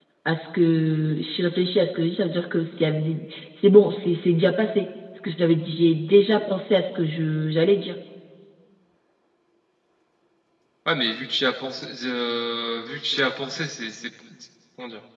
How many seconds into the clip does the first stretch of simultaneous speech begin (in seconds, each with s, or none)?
none